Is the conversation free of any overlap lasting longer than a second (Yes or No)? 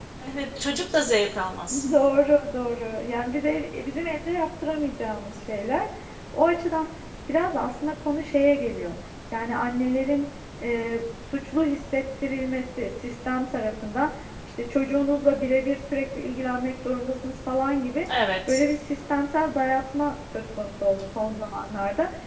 Yes